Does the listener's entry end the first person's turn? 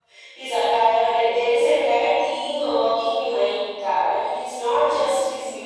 No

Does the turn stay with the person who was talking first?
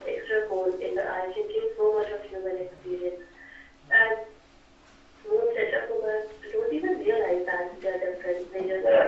No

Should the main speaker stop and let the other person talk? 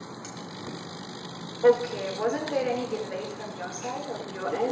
Yes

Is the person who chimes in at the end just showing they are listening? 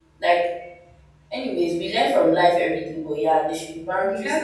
No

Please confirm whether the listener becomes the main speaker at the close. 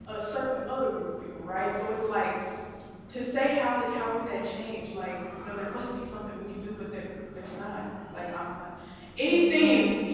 No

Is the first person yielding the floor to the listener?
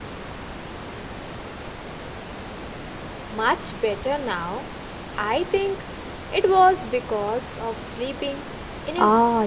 Yes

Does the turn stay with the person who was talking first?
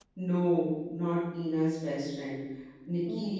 Yes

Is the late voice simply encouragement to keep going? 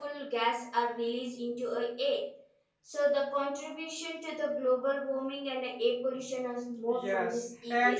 No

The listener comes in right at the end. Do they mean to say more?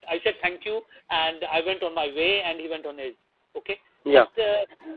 No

